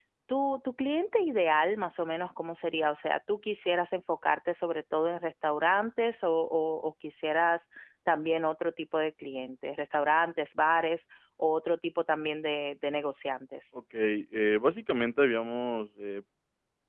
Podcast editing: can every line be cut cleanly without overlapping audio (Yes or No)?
Yes